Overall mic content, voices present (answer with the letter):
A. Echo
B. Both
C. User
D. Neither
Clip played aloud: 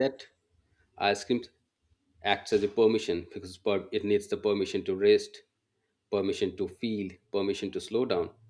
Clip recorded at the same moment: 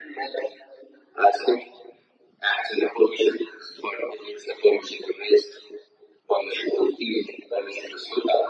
A